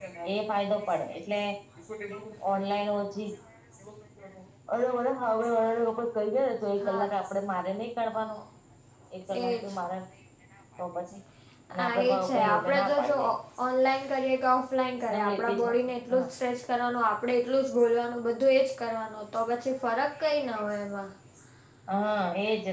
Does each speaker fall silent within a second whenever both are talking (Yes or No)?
No